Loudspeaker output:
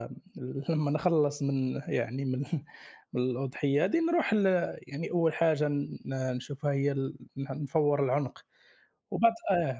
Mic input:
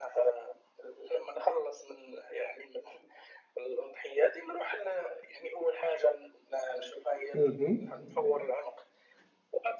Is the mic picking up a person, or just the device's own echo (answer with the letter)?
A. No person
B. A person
B